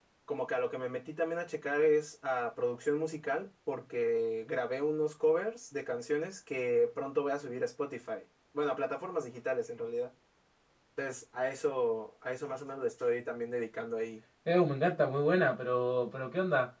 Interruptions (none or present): none